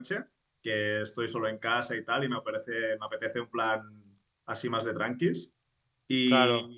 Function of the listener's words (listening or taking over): listening